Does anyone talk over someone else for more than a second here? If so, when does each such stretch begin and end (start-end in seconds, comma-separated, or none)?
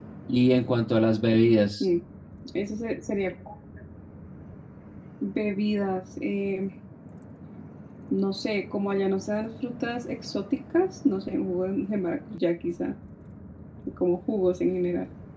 none